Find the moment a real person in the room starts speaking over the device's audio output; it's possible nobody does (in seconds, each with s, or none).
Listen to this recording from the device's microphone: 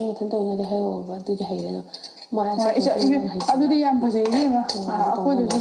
none